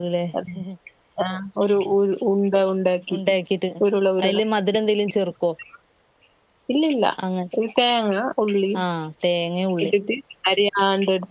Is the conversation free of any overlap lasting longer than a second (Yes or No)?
Yes